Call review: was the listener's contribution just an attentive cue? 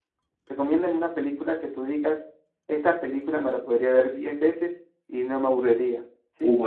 No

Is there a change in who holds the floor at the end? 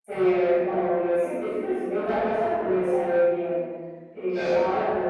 No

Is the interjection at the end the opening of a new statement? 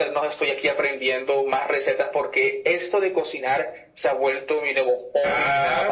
Yes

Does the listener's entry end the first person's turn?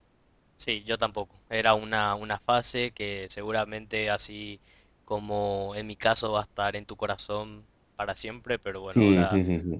Yes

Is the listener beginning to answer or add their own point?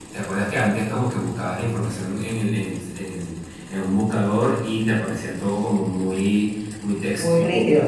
Yes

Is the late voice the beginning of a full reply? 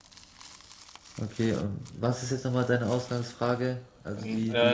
Yes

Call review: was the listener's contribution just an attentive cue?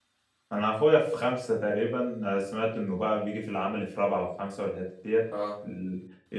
Yes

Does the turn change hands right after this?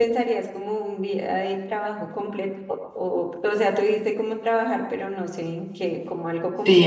Yes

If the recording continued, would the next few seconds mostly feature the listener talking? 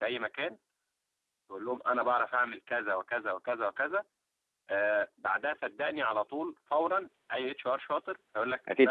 No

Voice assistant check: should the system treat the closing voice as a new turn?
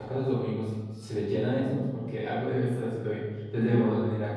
No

